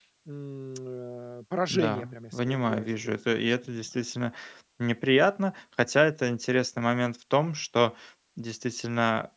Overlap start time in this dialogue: 1.7 s

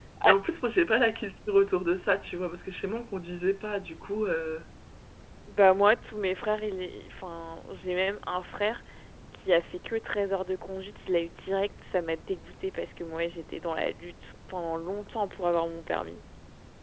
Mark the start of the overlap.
none

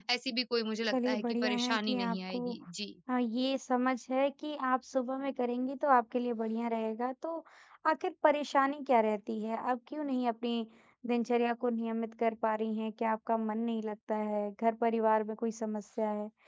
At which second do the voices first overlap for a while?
0.9 s

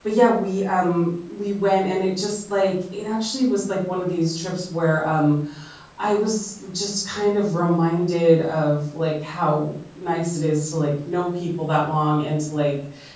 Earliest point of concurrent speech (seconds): none

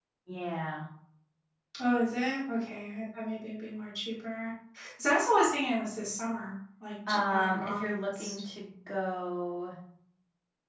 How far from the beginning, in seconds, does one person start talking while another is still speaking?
7.1 s

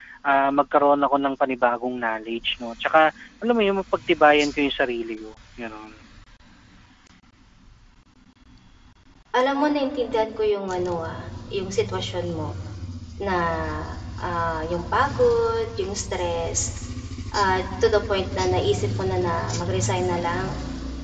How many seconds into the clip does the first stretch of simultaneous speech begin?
none

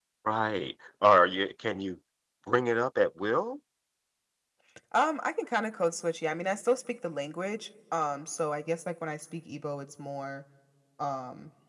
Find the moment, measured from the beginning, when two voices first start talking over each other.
none

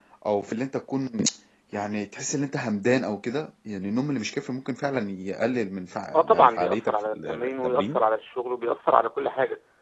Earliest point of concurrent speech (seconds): 6.1 s

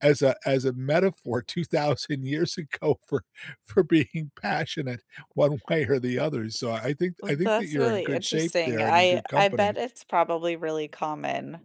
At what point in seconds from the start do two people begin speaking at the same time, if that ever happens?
7.2 s

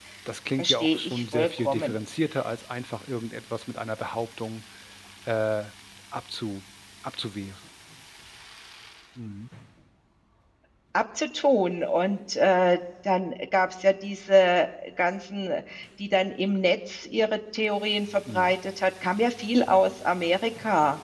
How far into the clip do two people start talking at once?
0.6 s

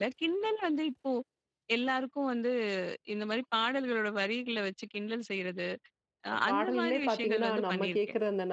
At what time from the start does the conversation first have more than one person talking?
6.5 s

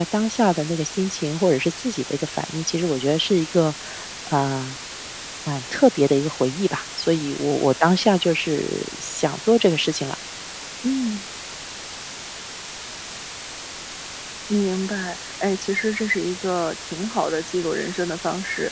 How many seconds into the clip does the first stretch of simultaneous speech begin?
none

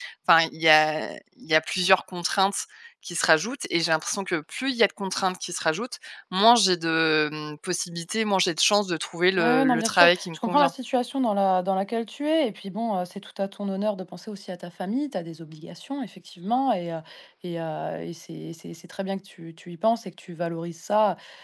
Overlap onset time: 9.4 s

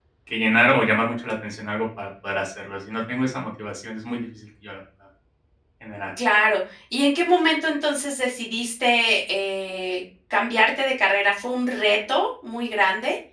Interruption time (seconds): none

